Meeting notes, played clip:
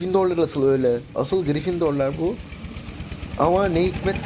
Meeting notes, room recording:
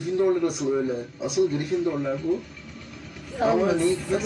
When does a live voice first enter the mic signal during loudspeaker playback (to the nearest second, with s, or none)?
3 s